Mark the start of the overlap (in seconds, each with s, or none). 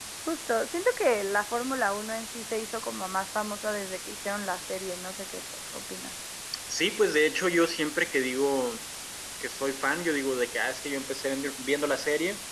none